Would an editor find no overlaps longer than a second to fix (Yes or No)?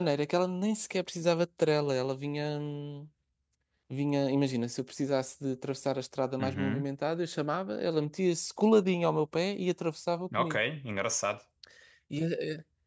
Yes